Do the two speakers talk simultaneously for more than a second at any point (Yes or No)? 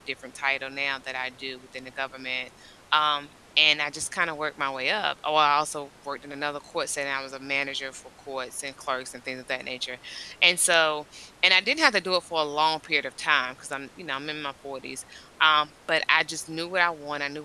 No